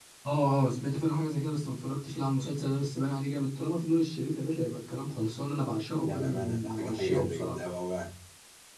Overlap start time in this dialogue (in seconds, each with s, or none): 6.0 s